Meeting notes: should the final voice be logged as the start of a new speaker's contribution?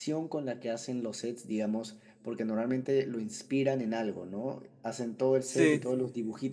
No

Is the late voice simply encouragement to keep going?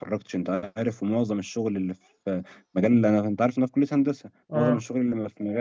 Yes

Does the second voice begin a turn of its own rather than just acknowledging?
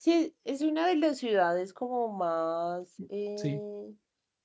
No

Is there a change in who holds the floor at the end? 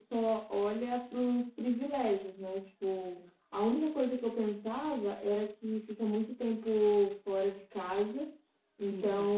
No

